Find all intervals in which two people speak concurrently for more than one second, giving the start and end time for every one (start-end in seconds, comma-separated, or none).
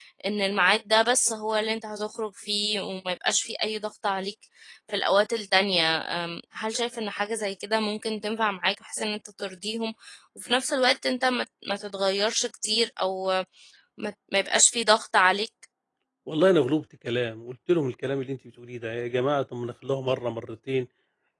none